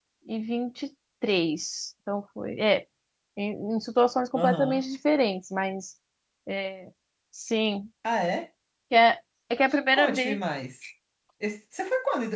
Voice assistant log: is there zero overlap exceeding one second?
Yes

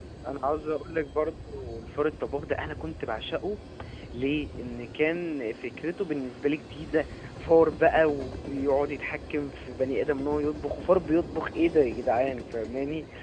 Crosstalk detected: No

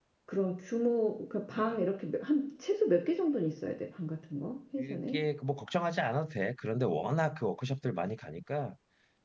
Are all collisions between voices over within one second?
Yes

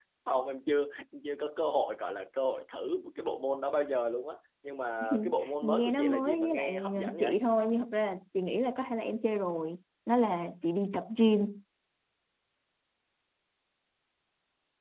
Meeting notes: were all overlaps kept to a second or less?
No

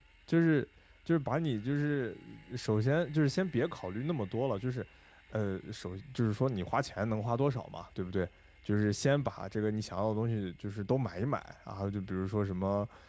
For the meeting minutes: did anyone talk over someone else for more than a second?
No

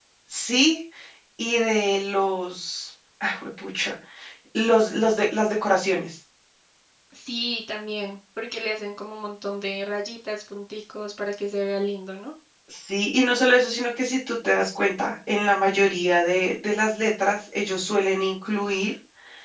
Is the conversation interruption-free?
Yes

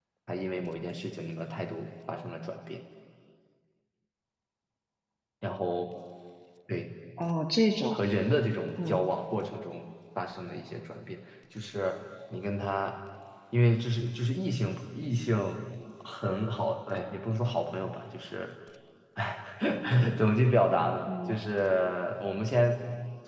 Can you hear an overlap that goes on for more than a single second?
No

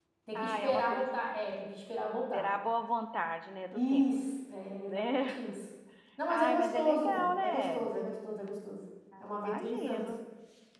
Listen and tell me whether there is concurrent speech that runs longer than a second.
Yes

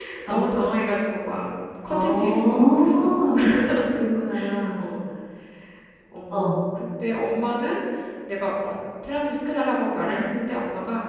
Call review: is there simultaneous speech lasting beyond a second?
Yes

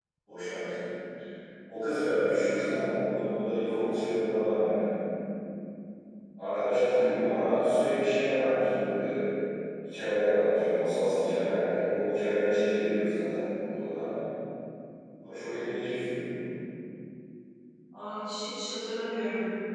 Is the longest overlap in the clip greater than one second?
No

